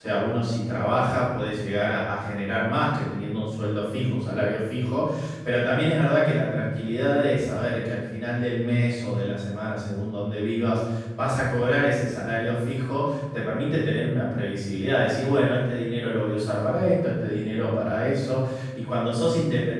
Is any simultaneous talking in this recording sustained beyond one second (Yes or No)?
No